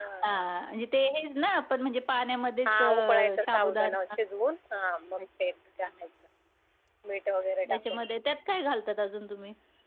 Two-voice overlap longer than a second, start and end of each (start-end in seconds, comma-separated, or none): 2.7-4.0